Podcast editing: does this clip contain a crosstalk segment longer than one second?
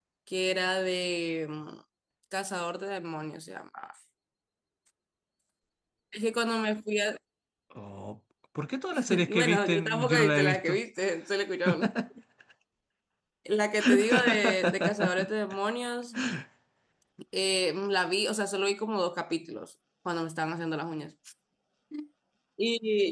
Yes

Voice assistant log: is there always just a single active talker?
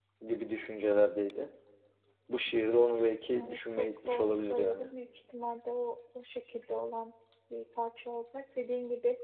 No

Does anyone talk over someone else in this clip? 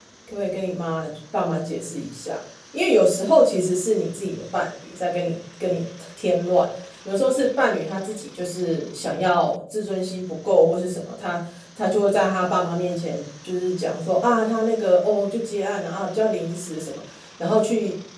No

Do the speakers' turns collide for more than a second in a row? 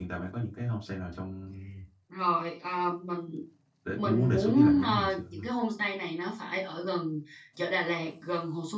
Yes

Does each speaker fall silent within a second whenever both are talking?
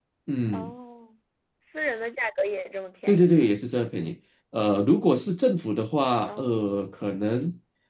Yes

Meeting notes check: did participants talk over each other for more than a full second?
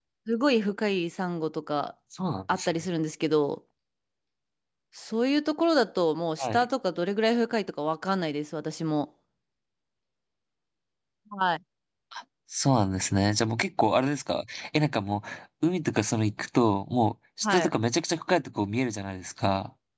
No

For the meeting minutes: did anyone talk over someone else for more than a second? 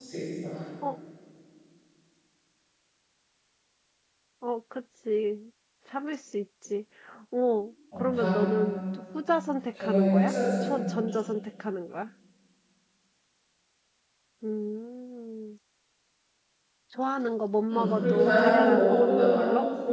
Yes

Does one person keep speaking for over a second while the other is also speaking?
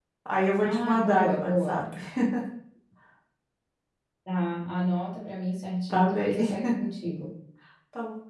Yes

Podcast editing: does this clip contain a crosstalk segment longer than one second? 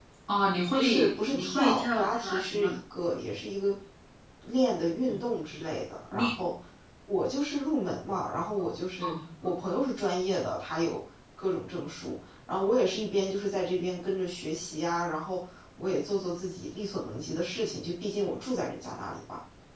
Yes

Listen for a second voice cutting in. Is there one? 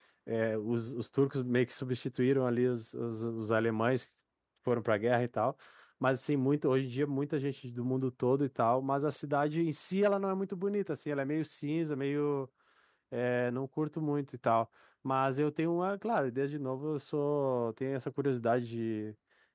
No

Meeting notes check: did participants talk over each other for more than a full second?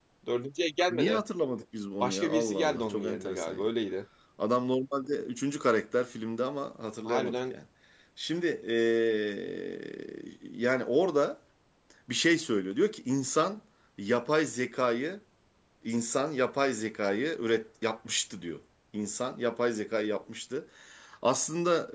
Yes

